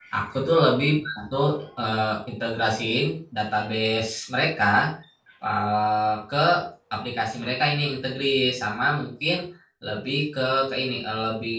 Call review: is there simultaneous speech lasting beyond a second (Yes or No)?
No